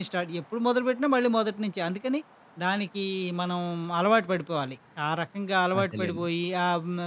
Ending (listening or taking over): listening